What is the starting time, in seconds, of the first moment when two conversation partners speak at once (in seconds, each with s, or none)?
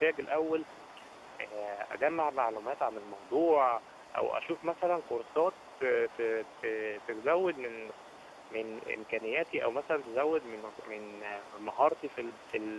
none